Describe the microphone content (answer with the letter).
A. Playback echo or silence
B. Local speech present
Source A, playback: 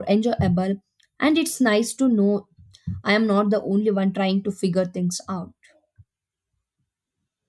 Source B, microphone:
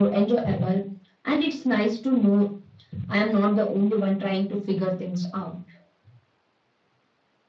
A